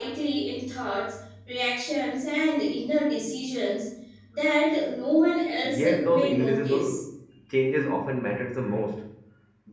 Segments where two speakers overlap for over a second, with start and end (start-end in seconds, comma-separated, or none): 5.6-7.0